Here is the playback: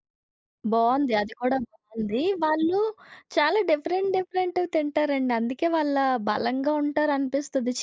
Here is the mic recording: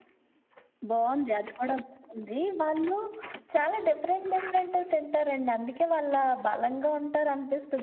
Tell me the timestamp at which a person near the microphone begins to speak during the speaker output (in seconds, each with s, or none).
none